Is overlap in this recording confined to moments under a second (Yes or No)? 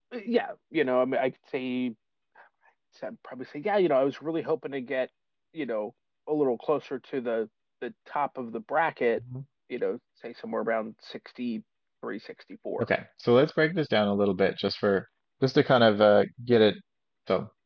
Yes